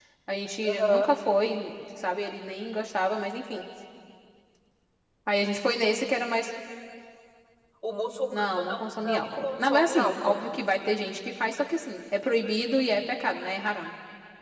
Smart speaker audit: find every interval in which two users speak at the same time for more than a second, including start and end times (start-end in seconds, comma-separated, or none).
8.3-10.4